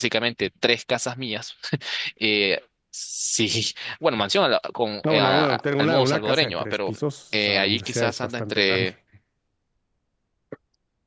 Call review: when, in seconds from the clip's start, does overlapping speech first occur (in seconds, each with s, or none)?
5.0 s